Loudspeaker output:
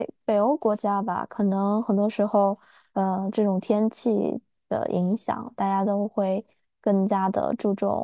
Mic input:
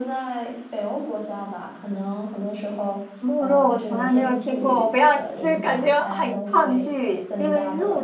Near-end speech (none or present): present